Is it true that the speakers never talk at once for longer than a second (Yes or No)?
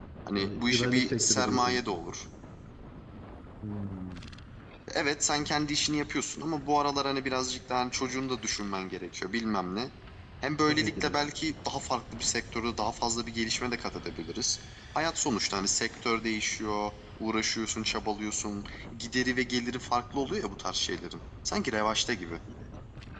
No